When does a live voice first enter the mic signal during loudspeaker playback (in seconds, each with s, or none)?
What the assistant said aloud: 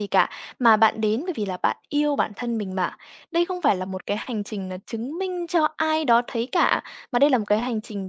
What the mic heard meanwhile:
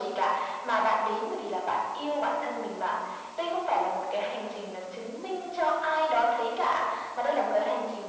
none